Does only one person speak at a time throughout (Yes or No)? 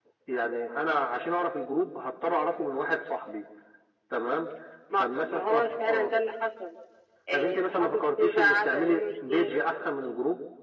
No